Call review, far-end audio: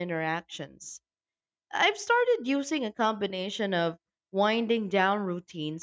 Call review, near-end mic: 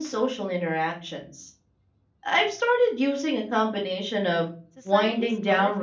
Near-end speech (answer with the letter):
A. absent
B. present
B